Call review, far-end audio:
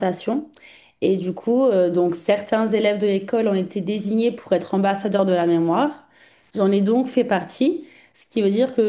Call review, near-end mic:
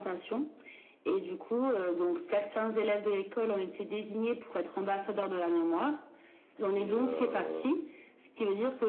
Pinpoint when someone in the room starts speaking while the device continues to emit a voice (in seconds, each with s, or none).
6.7 s